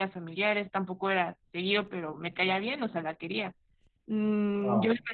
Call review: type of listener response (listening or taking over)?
taking over